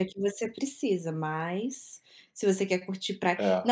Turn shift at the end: No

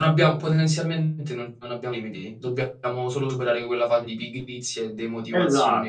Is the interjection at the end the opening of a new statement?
Yes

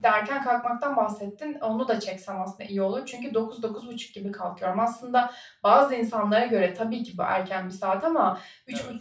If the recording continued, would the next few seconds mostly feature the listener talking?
No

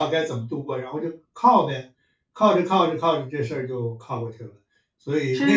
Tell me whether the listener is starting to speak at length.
Yes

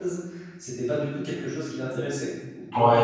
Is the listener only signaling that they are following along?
No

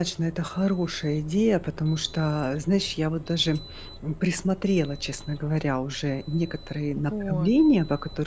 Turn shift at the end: No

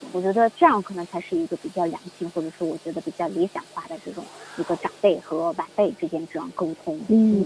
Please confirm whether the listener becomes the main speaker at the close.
Yes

